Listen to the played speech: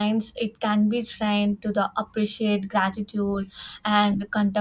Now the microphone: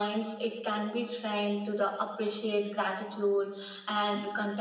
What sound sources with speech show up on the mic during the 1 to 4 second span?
echo only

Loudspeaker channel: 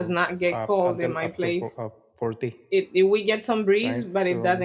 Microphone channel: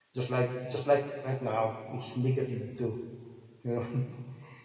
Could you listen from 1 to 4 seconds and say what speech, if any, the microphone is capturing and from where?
user only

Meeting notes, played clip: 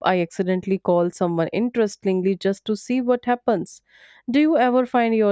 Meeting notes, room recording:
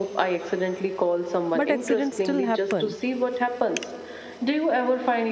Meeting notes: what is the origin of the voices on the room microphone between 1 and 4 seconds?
both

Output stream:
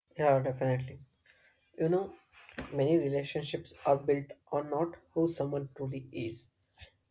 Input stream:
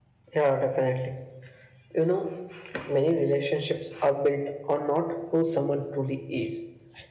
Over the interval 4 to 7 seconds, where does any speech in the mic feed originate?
echo only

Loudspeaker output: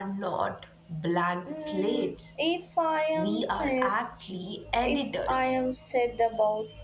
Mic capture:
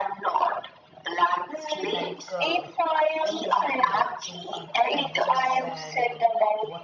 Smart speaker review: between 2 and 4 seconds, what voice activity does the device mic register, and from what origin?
both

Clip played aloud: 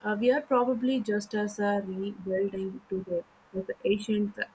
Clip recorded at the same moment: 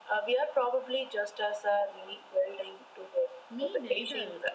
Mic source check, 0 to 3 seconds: echo only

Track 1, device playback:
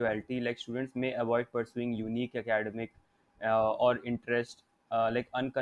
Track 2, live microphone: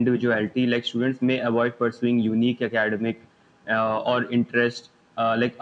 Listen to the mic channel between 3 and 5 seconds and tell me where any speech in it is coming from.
echo only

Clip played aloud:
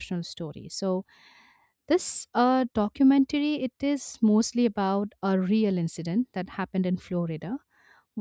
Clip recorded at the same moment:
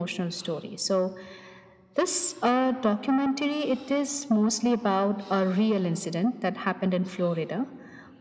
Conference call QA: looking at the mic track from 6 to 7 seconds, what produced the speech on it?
echo only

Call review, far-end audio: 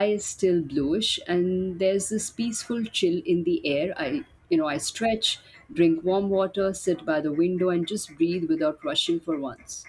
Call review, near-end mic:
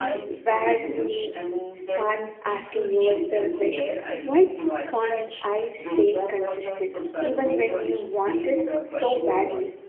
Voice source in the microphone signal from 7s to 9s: both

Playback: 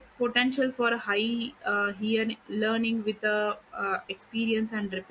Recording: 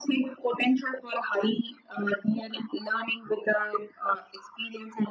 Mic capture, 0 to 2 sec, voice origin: echo only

